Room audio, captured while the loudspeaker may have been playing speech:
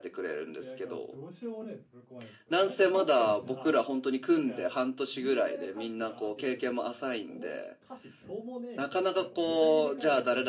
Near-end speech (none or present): present